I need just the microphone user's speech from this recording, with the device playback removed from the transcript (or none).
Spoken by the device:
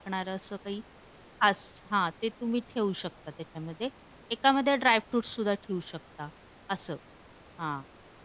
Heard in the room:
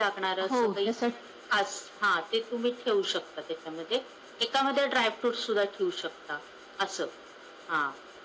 हो, त्यासाठी